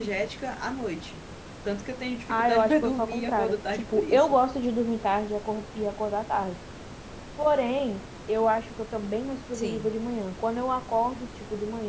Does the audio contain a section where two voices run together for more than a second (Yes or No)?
Yes